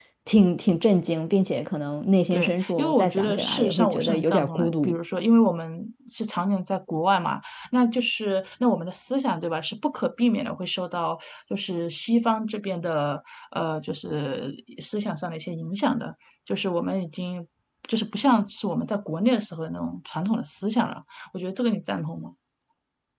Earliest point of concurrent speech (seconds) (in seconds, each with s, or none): 2.3 s